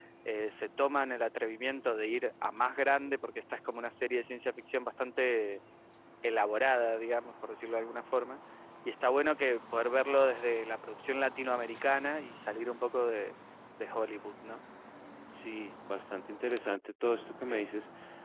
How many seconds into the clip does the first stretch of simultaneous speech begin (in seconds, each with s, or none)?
none